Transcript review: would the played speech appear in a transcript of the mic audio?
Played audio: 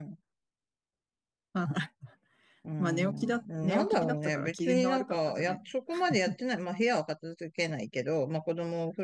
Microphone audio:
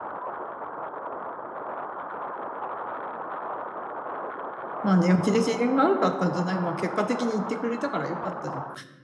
No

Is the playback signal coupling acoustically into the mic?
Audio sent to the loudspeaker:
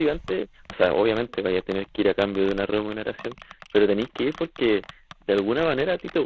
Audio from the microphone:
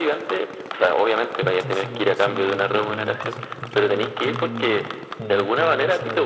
Yes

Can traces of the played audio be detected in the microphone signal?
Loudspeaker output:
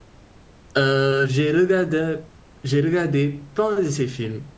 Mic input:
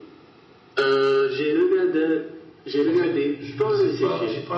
Yes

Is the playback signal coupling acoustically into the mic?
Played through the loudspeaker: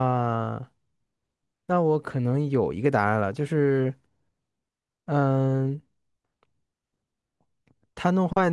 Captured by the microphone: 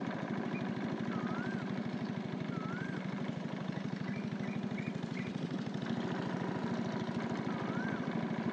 No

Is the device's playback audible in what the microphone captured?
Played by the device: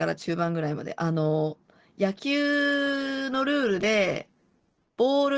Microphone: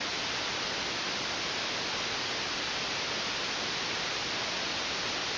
No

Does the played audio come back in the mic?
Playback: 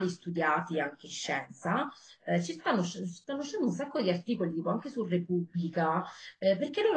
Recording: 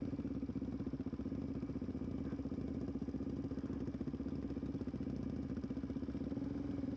No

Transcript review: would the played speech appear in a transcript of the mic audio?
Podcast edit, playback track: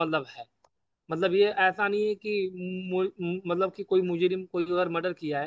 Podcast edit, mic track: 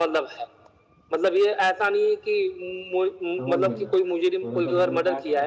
Yes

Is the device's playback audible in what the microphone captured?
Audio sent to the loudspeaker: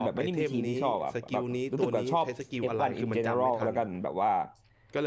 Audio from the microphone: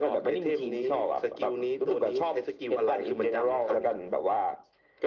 Yes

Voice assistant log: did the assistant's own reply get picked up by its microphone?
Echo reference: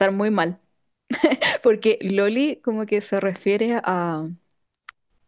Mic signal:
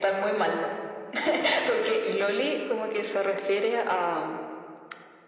Yes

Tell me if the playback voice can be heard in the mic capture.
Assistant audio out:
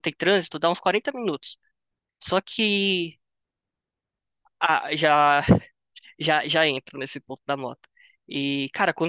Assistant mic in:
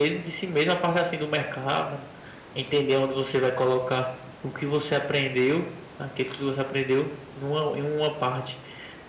No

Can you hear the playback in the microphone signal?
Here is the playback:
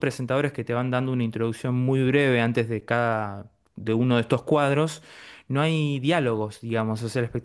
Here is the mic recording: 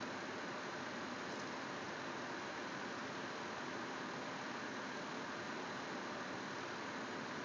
No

